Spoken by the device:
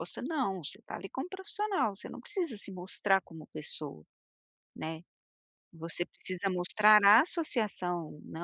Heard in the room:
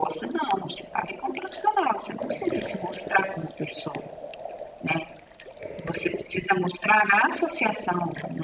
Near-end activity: none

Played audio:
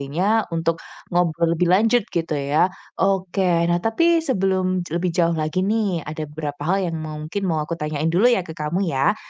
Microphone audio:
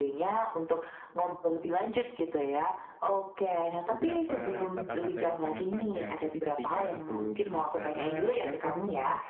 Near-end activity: present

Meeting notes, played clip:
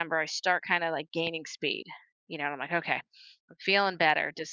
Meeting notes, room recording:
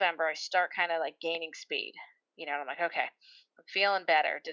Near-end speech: none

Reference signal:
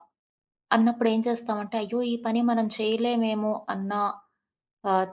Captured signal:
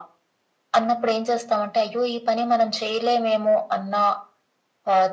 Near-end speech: none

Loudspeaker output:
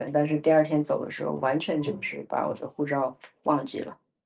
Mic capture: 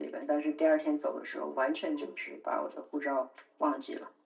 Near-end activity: none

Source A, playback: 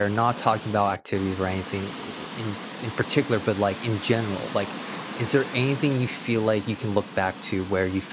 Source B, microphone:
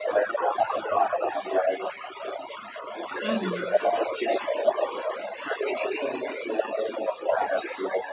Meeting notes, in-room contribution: present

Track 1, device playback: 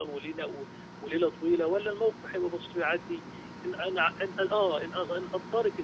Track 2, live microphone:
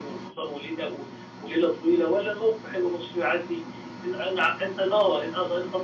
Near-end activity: none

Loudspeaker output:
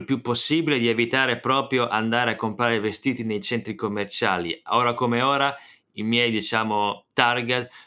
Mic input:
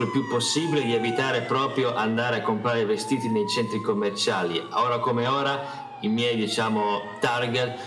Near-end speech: none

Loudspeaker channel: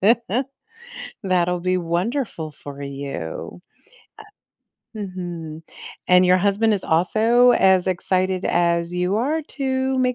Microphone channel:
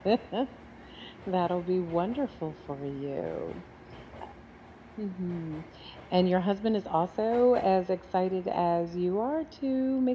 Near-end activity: none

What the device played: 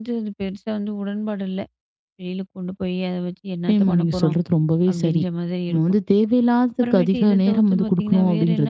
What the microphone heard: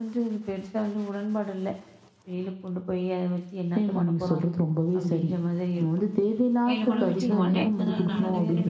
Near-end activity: present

